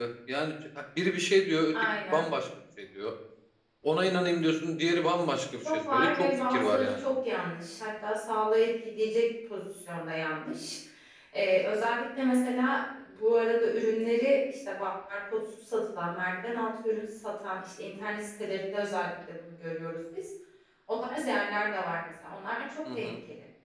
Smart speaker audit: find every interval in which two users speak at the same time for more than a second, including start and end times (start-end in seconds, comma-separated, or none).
5.6-7.1